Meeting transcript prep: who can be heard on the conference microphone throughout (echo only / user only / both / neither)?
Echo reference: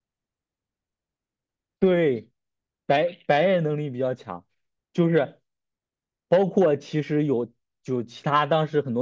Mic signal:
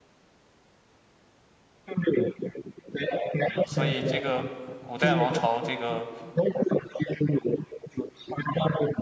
both